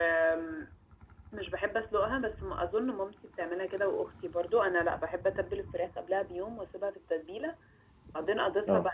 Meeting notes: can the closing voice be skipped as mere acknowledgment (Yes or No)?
Yes